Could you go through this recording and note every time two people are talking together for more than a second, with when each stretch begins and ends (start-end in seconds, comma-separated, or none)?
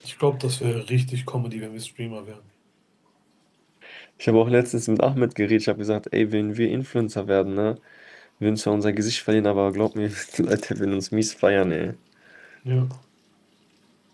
none